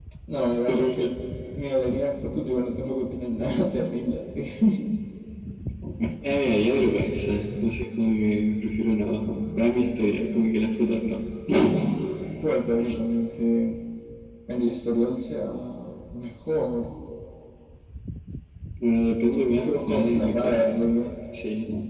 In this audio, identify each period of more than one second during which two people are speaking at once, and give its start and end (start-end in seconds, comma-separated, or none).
19.5-20.8